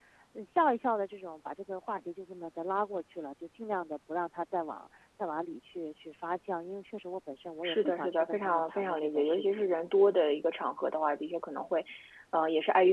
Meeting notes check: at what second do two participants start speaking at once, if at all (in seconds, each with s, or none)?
7.6 s